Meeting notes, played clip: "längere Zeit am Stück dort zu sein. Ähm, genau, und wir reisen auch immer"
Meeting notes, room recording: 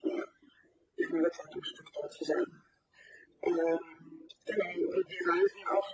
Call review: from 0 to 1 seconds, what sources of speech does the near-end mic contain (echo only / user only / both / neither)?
echo only